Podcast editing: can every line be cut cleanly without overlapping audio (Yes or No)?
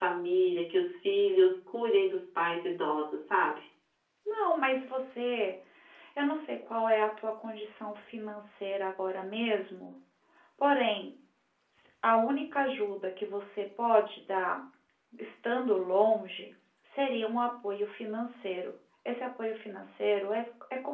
Yes